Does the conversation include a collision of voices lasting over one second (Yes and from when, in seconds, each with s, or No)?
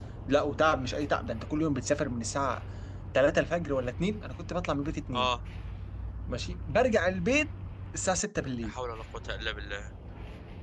No